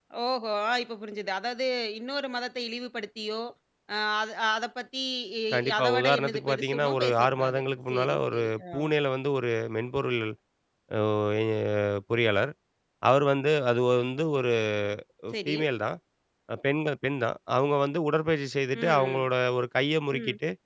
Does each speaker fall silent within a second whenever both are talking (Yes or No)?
No